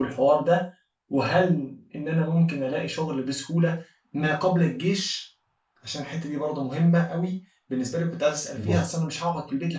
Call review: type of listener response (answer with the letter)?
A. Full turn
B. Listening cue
B